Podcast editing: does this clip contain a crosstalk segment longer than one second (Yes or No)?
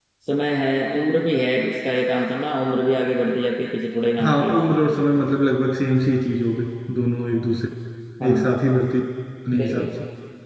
No